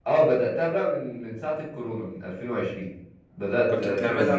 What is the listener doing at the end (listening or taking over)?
taking over